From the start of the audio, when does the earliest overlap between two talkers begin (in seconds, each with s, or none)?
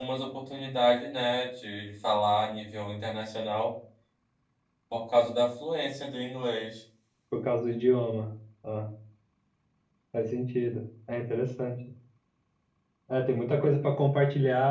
none